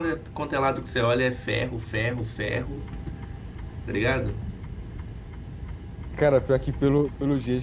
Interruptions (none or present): none